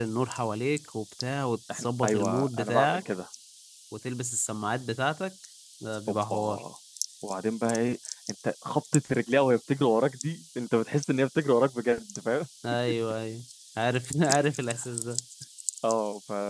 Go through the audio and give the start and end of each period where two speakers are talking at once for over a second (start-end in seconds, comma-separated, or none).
1.7-3.0